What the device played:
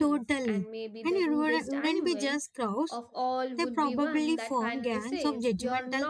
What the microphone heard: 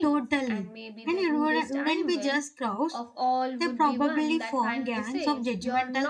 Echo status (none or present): present